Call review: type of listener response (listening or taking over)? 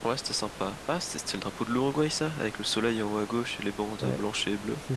taking over